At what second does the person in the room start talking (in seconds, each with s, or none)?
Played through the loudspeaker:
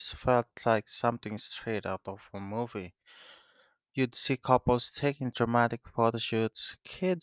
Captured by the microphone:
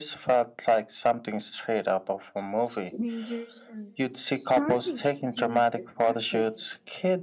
2.6 s